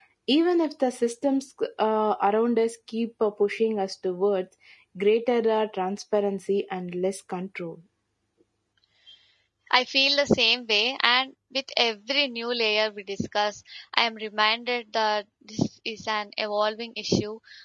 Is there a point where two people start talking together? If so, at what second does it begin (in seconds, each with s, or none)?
none